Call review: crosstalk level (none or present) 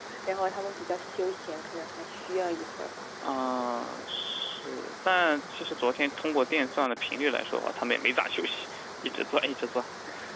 none